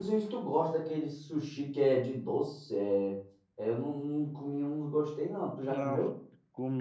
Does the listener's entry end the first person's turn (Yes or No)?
Yes